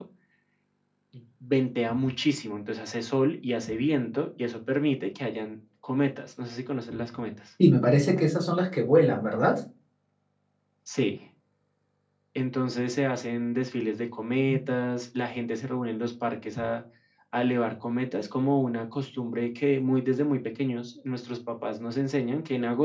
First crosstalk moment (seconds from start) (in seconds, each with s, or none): none